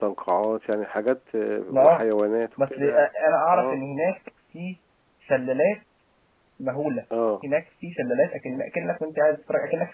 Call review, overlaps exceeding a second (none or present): none